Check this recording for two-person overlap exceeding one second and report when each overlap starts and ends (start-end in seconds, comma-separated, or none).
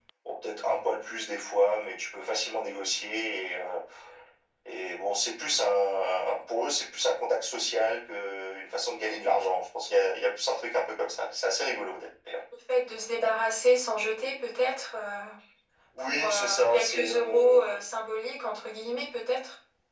16.0-17.7